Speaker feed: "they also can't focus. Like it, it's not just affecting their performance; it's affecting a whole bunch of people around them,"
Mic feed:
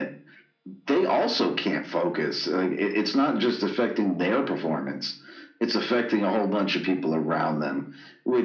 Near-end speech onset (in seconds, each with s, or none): none